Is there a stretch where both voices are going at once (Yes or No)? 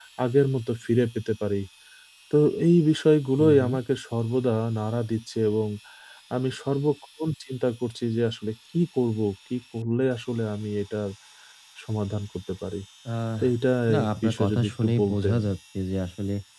Yes